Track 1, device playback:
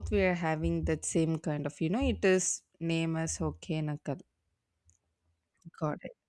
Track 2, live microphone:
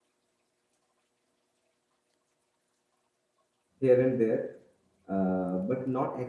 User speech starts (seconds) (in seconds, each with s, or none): 3.8 s